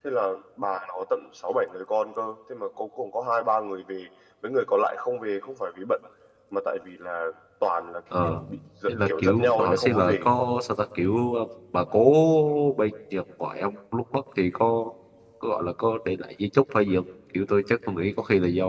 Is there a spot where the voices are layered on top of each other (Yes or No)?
Yes